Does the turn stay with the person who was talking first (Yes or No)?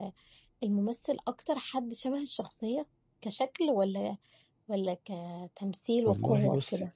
No